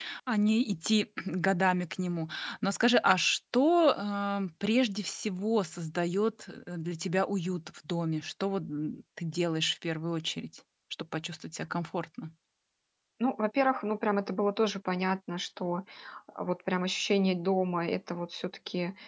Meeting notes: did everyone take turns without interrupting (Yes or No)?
Yes